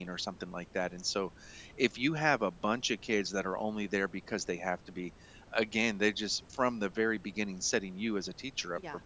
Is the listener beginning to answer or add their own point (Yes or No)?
No